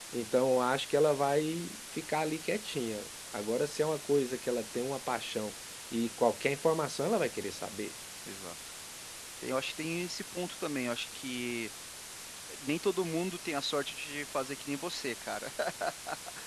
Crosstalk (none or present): none